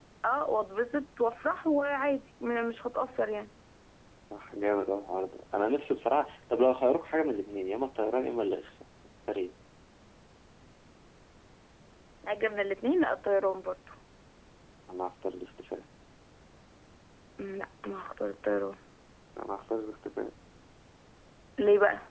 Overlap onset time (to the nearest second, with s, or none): none